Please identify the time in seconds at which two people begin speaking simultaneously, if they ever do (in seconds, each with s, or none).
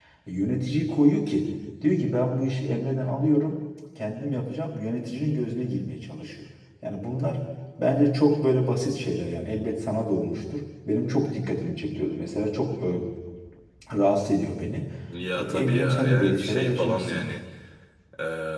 15.4 s